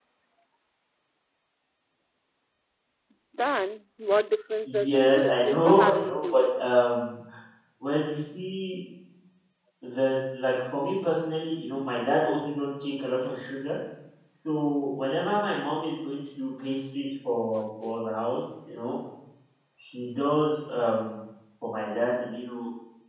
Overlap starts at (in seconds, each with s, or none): 4.7 s